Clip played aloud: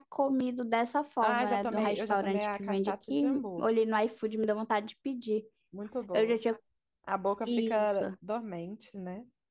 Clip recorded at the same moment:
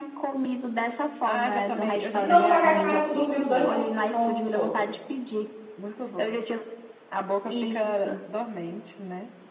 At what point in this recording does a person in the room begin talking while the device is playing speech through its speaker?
2.1 s

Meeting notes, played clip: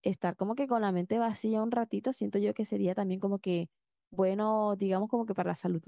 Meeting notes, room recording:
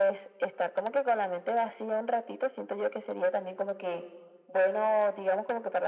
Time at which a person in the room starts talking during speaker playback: none

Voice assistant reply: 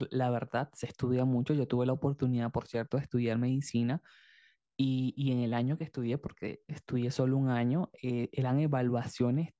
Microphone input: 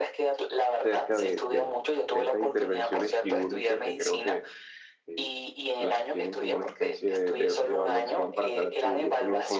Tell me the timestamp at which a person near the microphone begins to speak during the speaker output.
0.8 s

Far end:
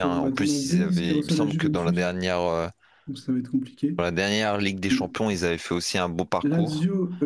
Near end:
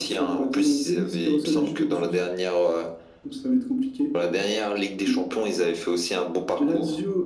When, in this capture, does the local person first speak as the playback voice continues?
none

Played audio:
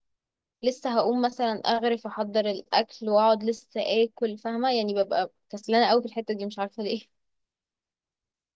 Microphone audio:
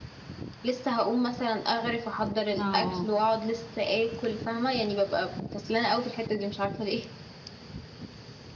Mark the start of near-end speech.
2.5 s

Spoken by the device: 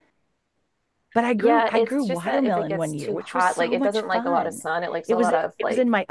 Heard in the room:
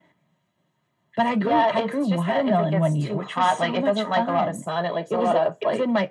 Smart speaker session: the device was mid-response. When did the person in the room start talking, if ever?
none

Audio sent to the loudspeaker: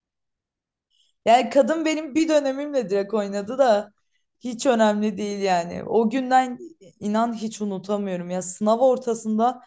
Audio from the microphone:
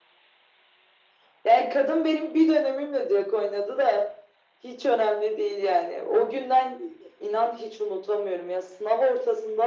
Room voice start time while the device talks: none

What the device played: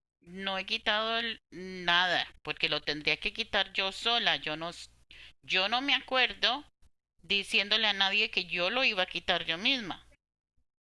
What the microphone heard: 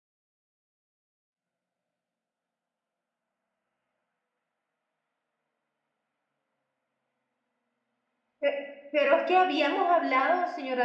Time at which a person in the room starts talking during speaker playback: 8.4 s

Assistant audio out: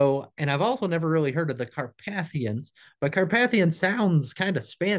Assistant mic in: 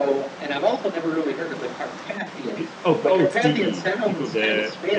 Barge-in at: 2.5 s

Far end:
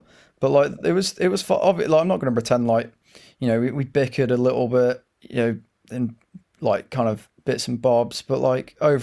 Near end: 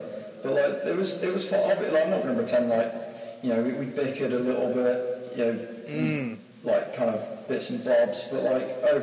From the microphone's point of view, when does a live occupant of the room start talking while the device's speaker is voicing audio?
5.8 s

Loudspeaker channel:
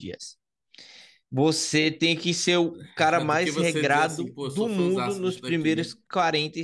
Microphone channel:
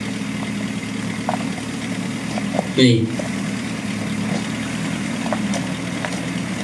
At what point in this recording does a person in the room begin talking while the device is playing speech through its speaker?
2.8 s

